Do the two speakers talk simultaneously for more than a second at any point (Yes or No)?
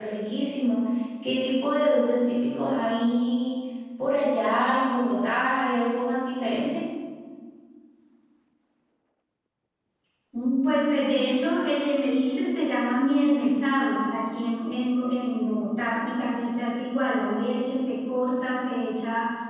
No